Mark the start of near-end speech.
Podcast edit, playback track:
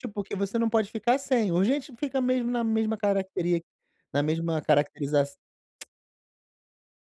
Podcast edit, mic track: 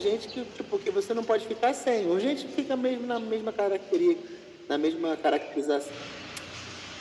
none

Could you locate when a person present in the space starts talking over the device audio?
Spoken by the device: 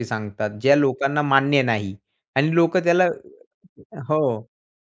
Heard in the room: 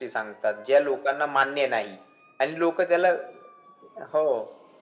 none

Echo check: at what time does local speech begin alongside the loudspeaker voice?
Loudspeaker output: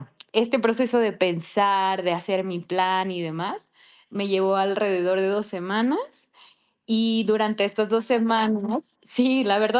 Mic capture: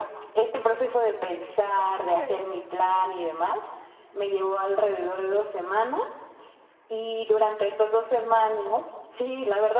1.9 s

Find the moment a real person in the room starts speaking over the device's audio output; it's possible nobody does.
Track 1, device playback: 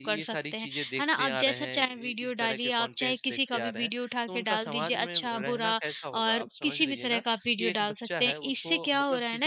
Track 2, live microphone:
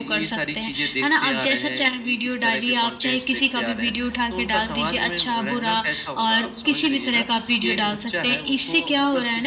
none

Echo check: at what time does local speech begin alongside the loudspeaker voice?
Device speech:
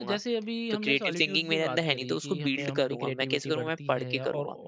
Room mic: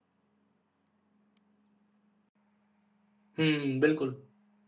3.4 s

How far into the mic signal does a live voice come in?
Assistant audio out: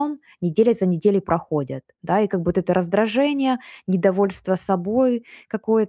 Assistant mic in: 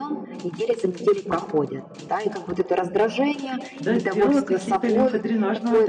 3.8 s

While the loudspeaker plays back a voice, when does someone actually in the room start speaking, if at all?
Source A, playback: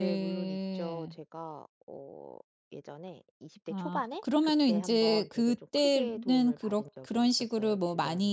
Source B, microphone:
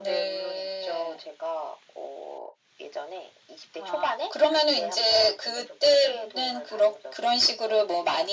none

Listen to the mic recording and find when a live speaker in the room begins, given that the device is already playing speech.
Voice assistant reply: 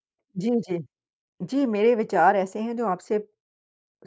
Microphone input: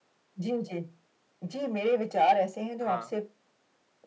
2.8 s

